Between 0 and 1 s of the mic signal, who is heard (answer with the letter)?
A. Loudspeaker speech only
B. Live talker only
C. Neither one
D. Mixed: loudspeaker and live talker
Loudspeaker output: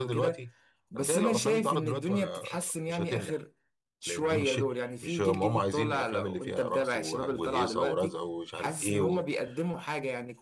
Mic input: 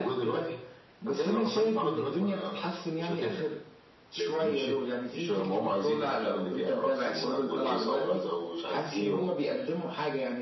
A